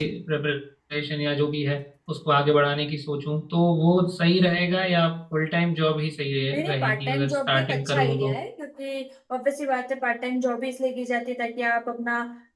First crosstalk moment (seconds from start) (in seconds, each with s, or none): 6.5 s